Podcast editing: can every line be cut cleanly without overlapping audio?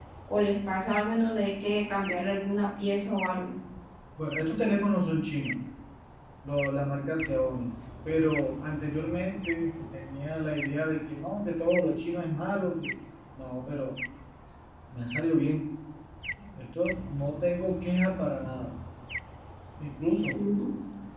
Yes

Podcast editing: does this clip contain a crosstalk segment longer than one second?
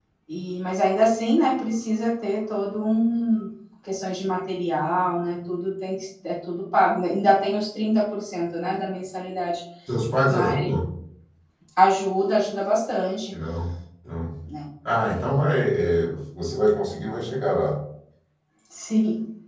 No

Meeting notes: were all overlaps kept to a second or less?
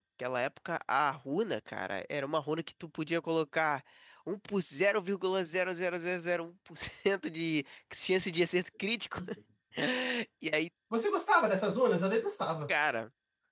Yes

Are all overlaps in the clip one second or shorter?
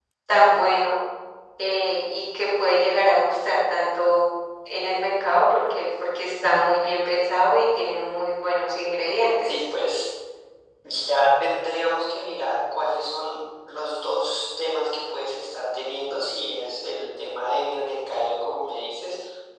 Yes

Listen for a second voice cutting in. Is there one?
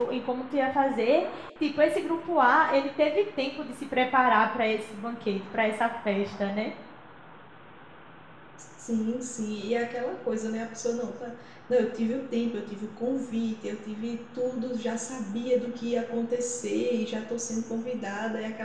No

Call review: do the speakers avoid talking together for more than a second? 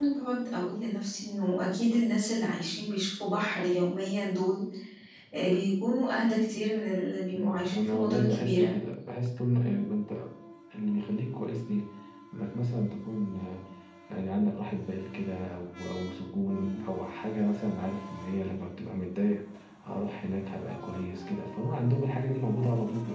No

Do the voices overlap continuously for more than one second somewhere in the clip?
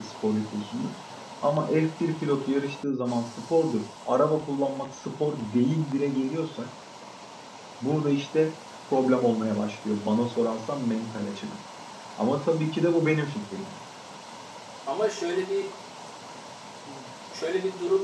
No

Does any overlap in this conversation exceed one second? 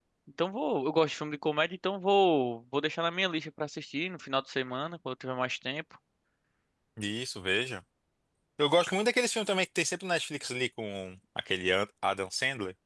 No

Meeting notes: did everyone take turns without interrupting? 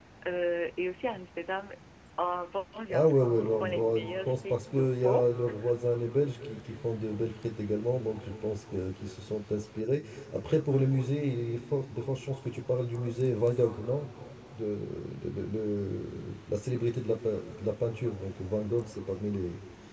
No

